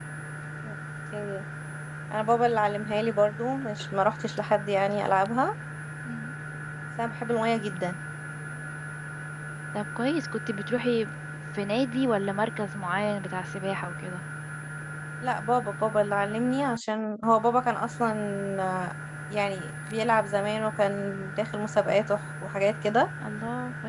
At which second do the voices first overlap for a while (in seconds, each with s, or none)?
none